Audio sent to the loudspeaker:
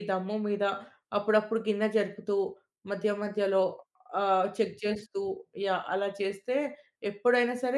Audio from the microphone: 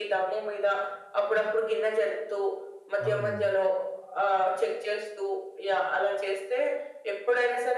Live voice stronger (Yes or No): No